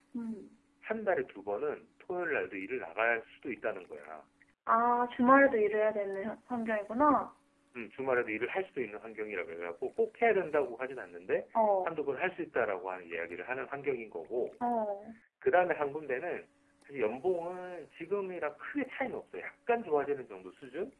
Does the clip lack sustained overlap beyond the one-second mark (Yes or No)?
Yes